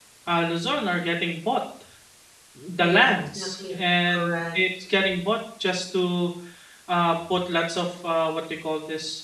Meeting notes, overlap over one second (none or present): present